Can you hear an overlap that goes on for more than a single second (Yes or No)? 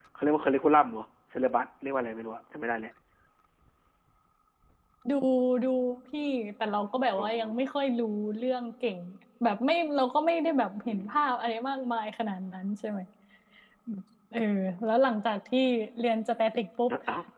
No